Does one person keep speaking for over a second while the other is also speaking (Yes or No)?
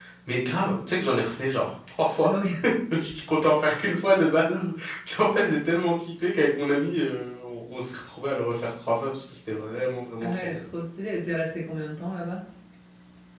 No